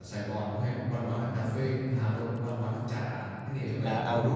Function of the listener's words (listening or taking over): taking over